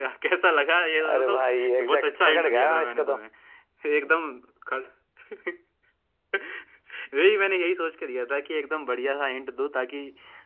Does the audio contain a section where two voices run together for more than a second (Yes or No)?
Yes